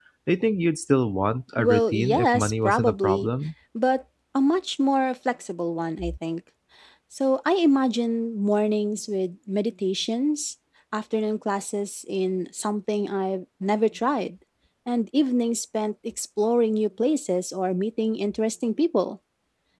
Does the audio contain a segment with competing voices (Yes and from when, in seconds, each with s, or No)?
Yes, from 1.6 s